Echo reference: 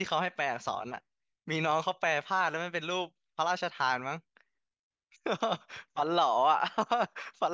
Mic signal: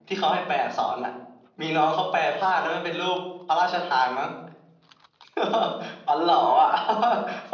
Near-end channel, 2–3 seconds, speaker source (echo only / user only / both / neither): echo only